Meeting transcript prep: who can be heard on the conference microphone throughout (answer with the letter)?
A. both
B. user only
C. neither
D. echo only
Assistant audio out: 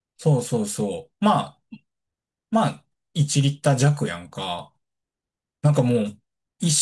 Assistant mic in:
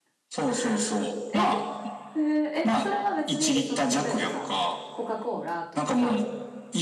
A